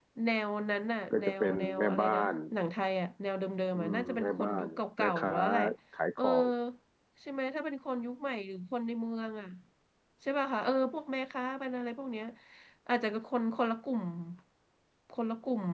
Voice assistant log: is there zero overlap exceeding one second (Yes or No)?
No